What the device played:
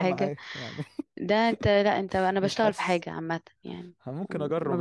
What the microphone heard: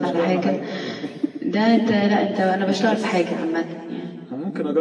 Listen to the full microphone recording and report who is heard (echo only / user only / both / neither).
echo only